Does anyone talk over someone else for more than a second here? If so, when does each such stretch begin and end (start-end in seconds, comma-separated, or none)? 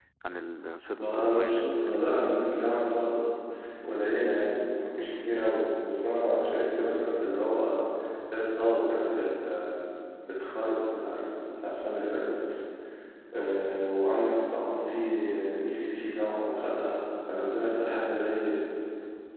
1.0-2.5